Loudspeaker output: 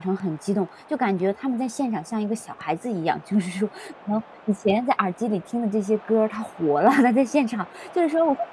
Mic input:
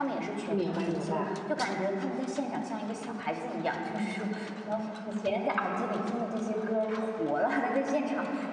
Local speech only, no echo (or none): 明白明白。